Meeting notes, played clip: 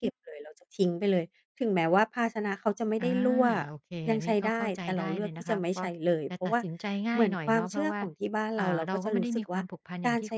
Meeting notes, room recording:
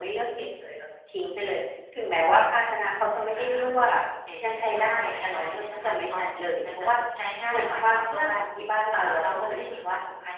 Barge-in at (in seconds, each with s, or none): none